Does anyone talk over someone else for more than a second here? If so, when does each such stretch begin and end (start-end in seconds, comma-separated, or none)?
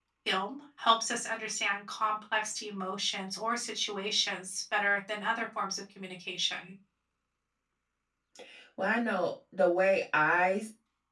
none